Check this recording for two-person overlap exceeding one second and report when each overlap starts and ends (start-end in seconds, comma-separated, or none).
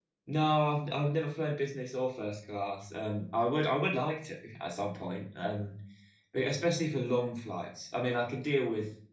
none